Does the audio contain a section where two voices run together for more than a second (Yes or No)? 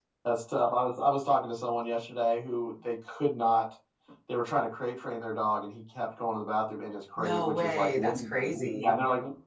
Yes